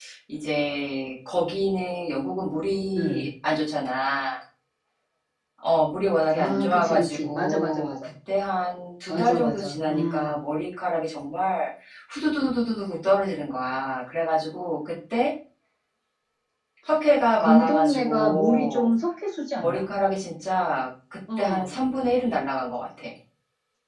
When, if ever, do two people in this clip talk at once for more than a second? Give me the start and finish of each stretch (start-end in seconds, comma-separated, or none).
6.3-7.9, 9.1-10.3, 17.4-18.9